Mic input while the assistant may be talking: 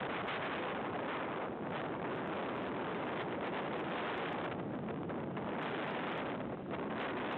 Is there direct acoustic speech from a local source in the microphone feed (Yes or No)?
No